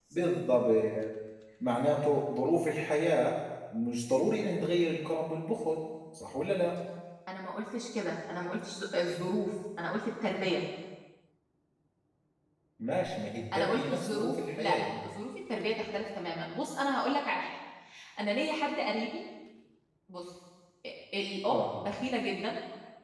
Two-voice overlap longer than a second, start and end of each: 13.5-14.9

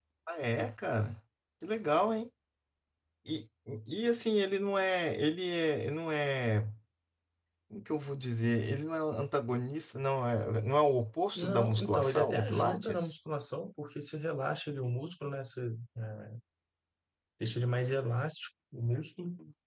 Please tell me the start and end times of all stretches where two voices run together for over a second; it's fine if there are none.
11.3-13.1

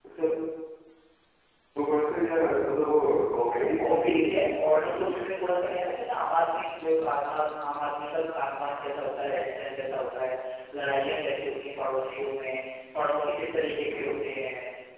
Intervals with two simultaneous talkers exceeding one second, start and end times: 3.5-5.3

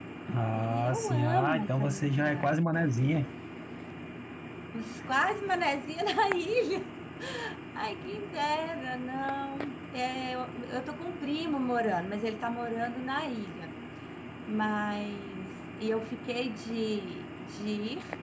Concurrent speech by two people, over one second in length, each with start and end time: 0.6-2.5

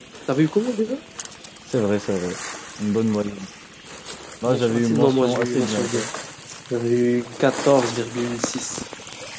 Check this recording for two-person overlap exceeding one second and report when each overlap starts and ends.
4.5-6.1

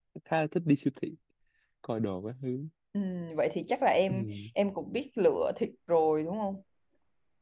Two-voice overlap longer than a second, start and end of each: none

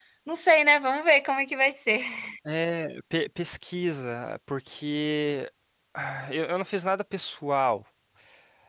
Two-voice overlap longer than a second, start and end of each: none

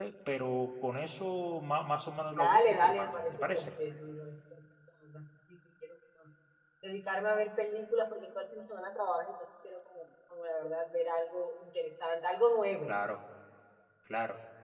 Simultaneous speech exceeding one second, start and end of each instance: 2.4-3.7

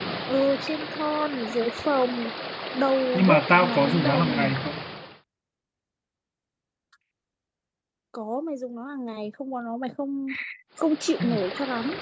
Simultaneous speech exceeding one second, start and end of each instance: 3.1-4.5

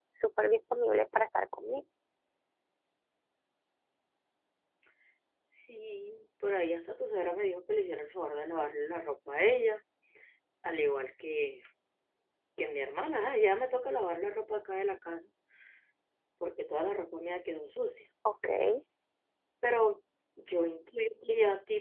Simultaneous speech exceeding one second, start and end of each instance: none

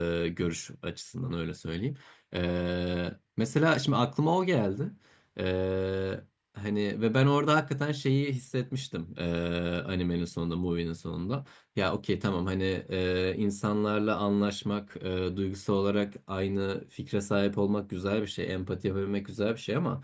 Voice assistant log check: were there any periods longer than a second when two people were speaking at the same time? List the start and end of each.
none

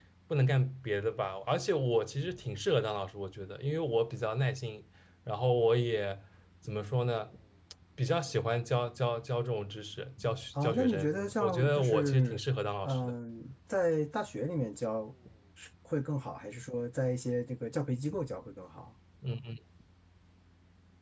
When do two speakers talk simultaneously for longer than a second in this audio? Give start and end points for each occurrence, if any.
10.6-12.4

